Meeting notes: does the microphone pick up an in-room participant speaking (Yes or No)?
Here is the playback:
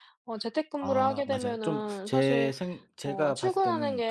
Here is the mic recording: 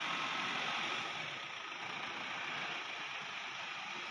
No